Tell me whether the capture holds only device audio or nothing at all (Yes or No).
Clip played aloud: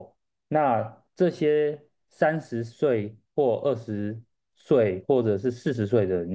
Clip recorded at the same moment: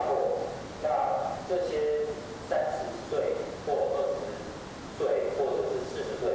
Yes